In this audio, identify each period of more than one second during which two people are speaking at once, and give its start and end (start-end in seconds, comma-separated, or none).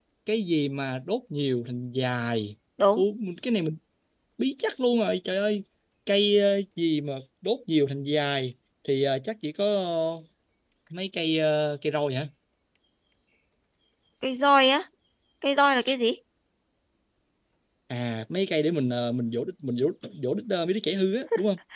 none